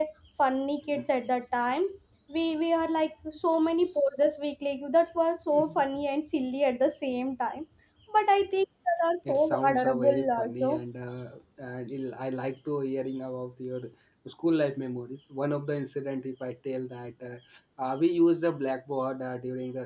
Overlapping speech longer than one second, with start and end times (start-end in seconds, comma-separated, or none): 9.3-10.8